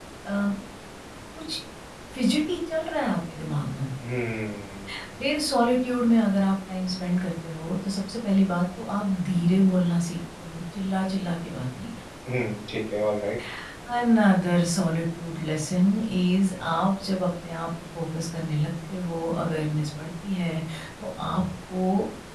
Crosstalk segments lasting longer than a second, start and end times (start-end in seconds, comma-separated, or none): none